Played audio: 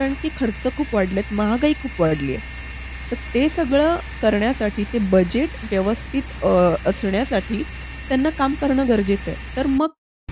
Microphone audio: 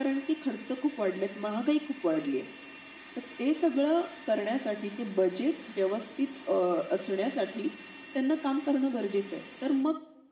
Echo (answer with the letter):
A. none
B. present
B